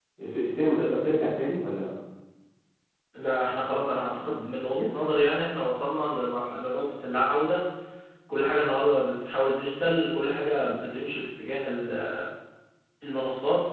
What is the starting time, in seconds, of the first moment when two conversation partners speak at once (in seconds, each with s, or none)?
none